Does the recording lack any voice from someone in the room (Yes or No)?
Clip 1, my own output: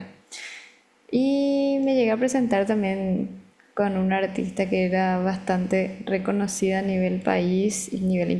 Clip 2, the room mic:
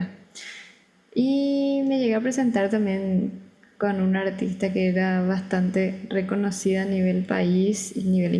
Yes